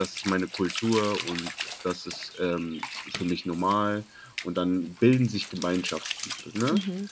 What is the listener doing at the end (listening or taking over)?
taking over